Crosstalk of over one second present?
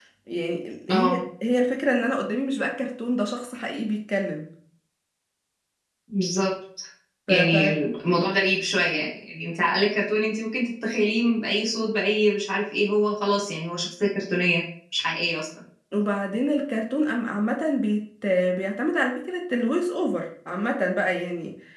No

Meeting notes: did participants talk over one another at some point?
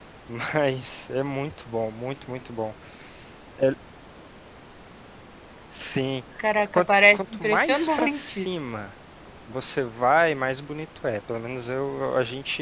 Yes, from 6.7 s

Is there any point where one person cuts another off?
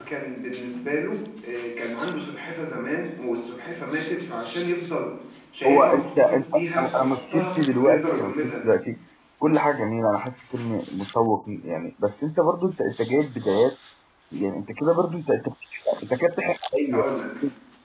Yes, from 5.6 s

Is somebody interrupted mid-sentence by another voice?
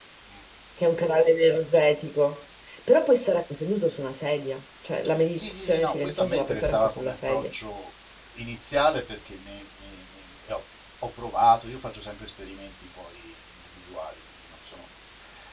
Yes, from 5.3 s

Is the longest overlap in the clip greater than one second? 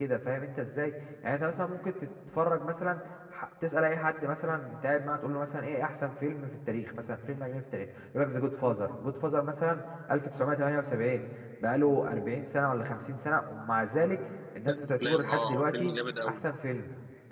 Yes, from 14.7 s

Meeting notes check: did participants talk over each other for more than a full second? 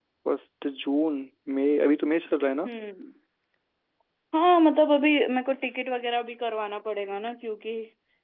No

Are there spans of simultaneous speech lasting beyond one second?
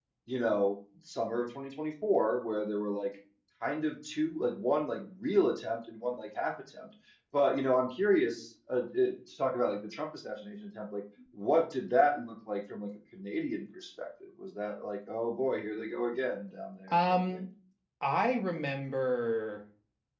No

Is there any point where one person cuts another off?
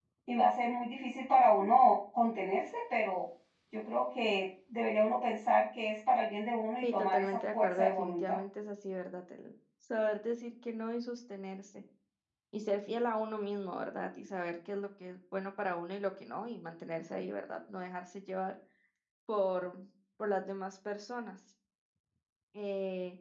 Yes, from 6.8 s

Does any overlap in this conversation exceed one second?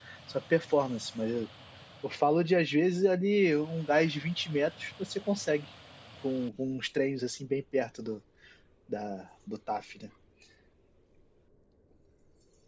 No

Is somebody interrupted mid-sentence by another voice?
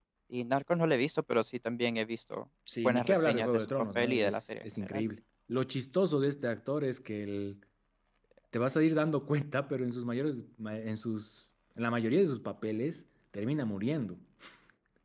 Yes, from 2.7 s

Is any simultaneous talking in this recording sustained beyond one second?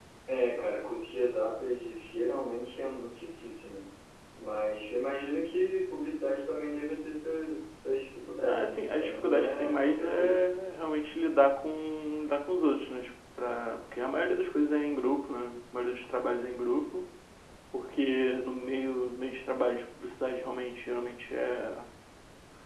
Yes, from 8.5 s

